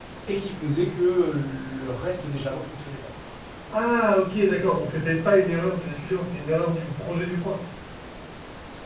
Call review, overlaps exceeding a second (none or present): none